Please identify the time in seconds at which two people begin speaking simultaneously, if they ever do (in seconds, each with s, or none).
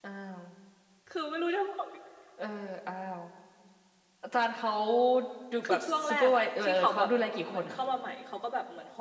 5.6 s